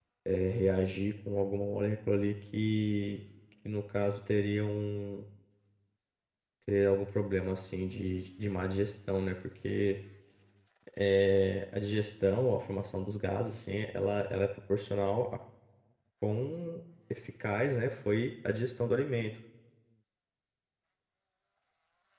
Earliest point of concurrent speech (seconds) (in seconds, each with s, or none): none